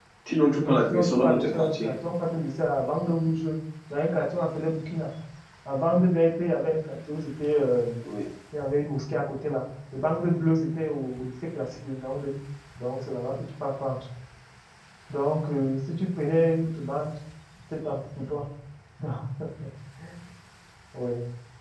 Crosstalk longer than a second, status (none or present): present